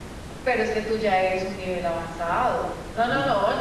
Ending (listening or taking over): listening